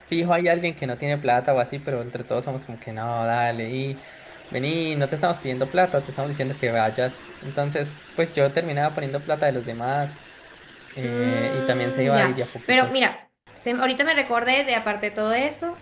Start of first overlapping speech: 11 s

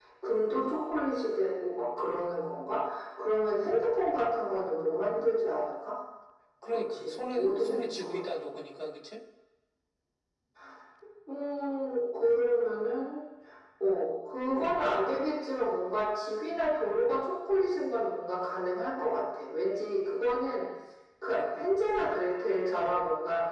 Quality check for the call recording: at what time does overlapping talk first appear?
7 s

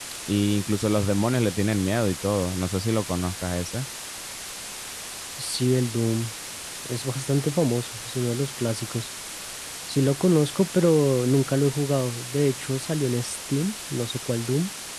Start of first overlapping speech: none

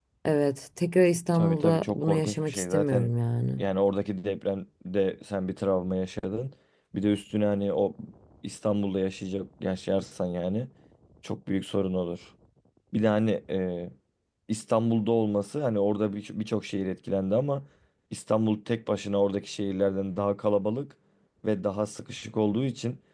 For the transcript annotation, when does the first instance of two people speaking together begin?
1 s

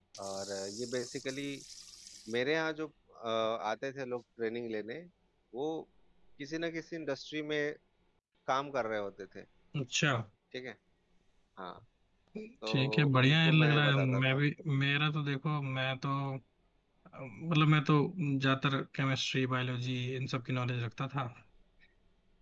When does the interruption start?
13 s

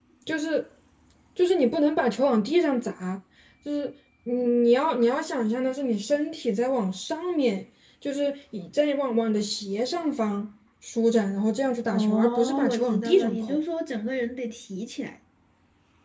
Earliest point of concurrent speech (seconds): 12 s

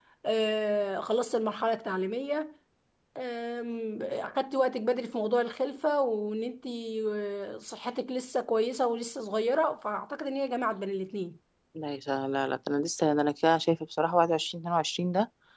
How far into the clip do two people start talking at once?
none

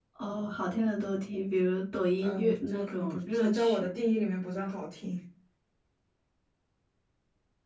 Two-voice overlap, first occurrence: 2 s

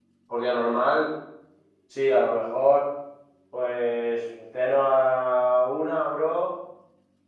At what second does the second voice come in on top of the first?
none

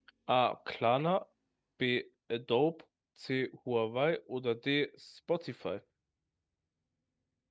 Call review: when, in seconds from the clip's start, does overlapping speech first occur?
none

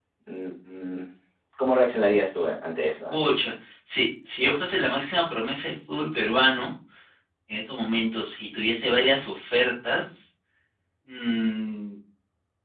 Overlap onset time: none

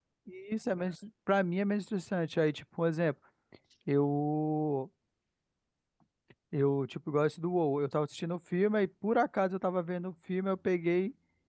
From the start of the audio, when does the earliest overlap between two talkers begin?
none

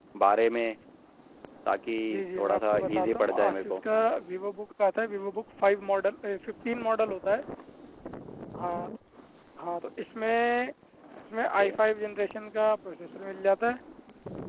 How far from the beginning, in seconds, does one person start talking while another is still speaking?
2 s

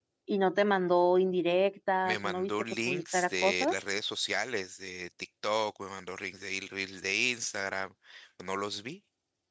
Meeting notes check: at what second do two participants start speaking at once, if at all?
2 s

